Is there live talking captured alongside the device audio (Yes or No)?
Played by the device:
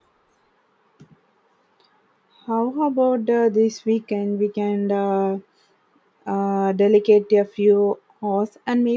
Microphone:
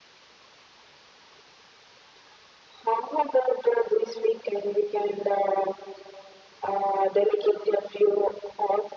No